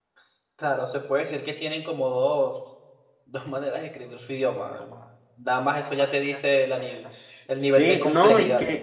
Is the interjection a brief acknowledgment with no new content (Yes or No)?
No